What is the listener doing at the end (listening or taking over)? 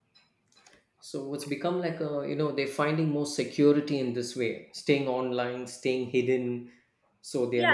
taking over